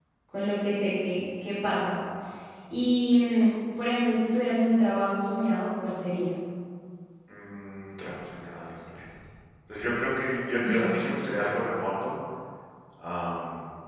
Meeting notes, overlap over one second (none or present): none